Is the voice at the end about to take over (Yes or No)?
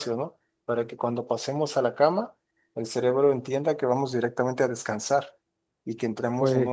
No